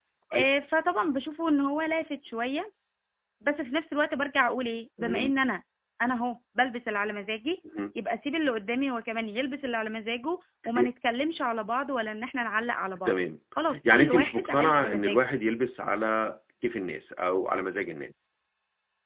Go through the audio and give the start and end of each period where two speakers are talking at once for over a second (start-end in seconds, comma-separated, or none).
13.9-15.2